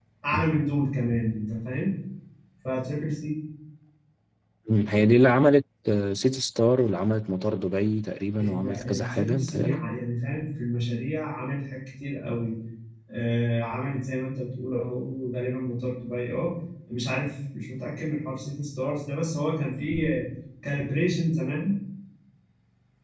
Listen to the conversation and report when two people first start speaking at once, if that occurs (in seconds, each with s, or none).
8.4 s